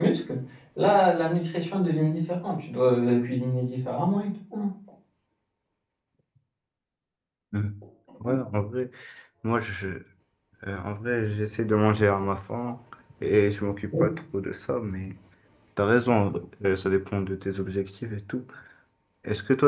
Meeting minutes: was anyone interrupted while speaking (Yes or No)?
No